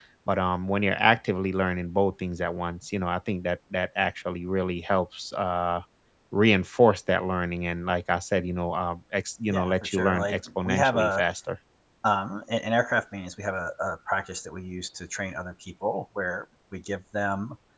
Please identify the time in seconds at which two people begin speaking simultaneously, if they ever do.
9.5 s

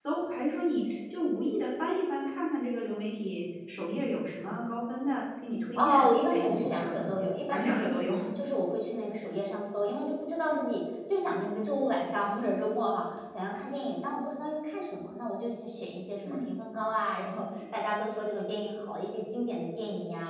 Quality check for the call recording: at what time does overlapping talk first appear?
5.8 s

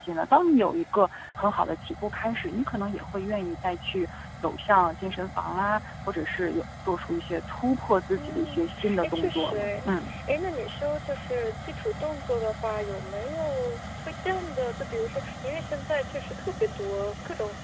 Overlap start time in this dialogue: 8.2 s

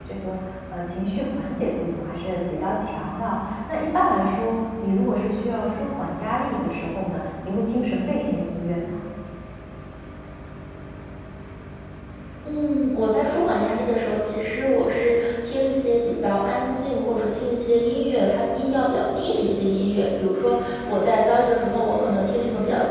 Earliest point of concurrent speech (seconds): none

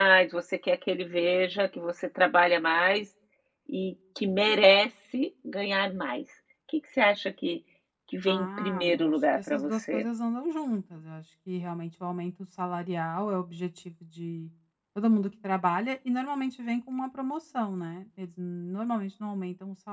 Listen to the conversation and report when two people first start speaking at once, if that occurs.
8.3 s

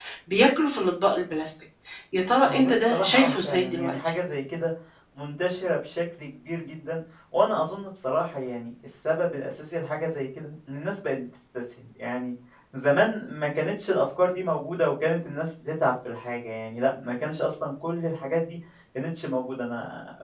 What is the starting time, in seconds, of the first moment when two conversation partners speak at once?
2.5 s

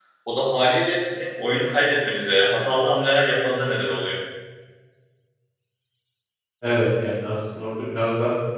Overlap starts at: none

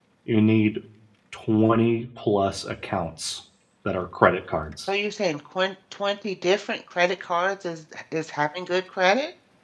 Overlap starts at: none

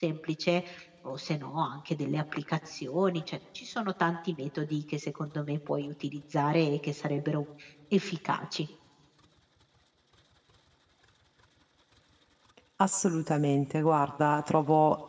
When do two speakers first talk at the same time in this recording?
none

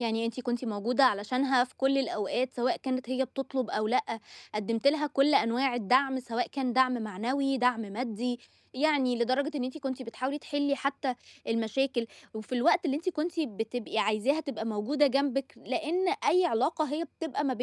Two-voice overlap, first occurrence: none

